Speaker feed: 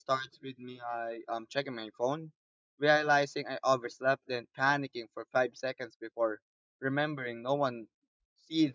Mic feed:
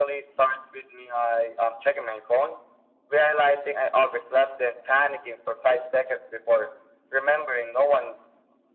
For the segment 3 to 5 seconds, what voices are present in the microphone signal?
echo only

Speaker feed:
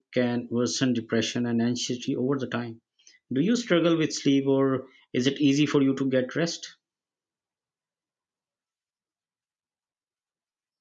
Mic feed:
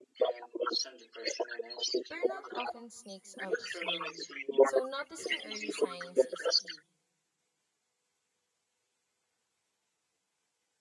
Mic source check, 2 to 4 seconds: both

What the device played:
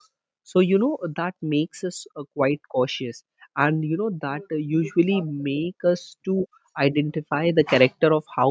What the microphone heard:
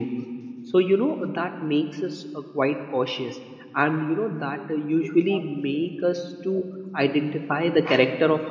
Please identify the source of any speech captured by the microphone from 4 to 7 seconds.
echo only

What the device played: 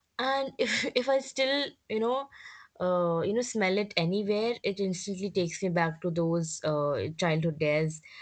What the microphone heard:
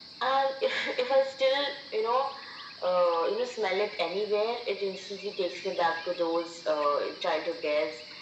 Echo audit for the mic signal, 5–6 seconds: echo only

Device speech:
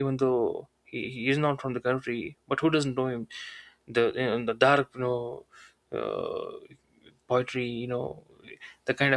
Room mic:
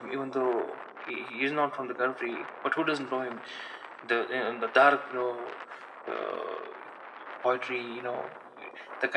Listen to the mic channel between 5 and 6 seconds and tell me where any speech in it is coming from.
echo only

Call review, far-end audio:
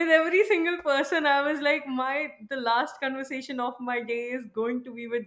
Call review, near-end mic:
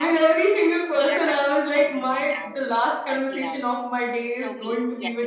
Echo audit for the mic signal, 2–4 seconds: both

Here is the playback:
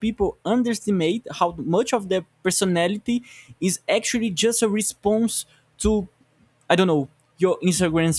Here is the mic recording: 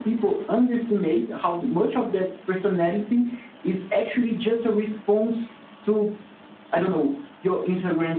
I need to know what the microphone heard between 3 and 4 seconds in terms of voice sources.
echo only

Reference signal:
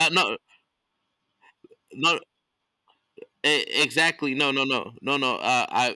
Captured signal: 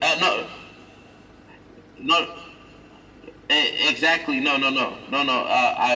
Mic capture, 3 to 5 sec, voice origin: echo only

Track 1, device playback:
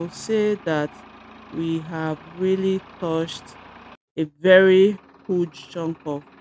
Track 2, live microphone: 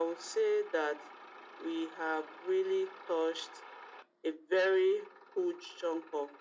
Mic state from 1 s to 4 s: echo only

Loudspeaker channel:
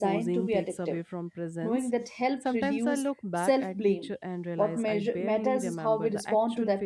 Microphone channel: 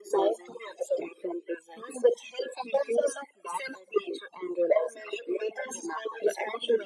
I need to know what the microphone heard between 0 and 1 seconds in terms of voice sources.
echo only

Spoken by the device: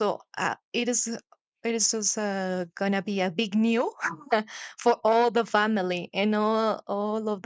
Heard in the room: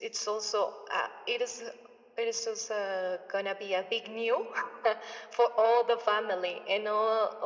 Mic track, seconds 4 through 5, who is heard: echo only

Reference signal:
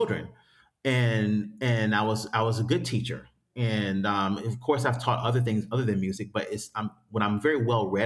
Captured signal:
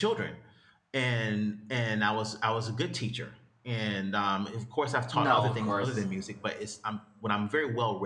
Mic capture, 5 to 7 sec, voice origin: both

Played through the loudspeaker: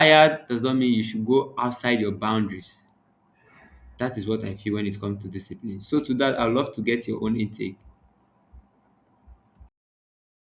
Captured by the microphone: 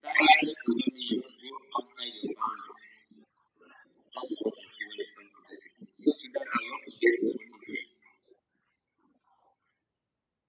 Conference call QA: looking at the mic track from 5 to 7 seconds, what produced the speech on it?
echo only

